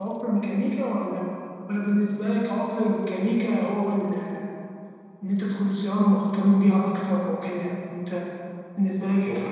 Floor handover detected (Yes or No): No